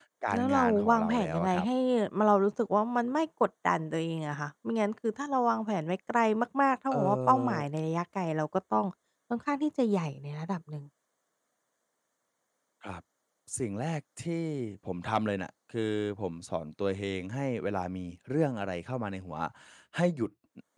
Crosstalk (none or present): present